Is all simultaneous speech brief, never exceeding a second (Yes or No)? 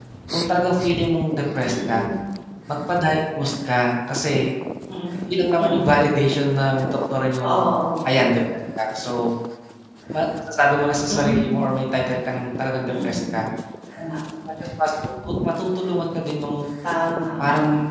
Yes